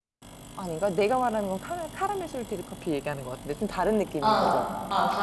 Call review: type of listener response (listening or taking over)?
taking over